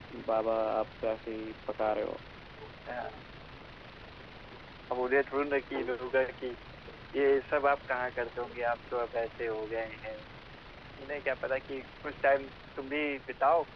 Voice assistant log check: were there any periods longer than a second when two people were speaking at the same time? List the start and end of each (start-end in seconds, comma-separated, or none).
none